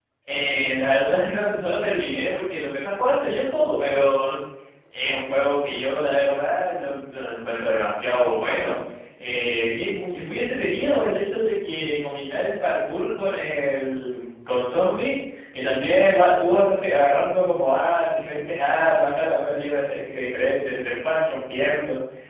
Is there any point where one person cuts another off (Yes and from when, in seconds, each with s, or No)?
No